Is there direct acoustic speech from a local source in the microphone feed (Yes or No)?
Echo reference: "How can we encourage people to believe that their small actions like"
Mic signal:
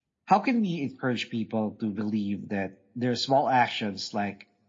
No